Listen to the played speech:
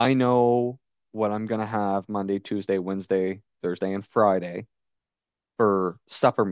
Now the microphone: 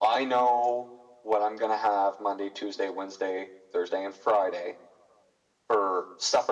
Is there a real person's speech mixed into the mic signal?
No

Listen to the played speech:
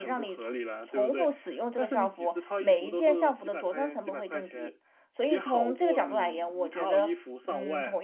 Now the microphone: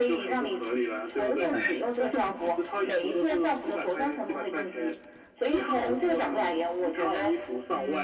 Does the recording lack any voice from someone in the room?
No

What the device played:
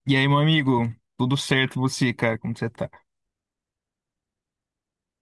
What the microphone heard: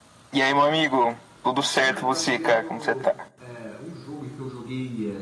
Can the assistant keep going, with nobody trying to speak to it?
No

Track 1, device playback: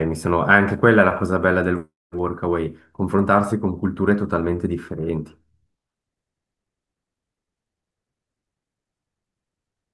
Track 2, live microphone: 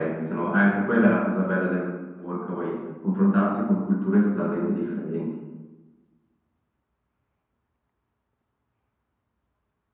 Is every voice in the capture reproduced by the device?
Yes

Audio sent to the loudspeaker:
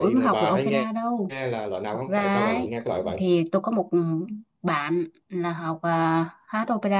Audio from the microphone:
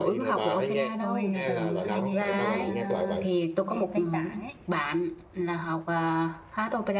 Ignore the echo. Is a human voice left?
Yes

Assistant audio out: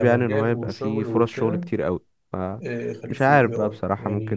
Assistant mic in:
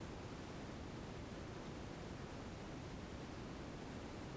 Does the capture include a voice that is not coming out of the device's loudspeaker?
No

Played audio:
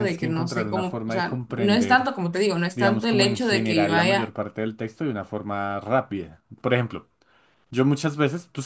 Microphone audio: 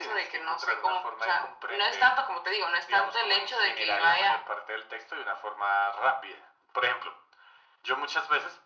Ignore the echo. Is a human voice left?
No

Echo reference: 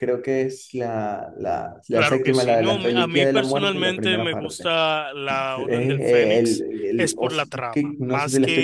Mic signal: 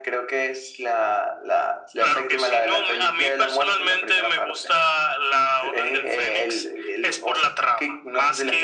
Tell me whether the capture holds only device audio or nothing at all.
Yes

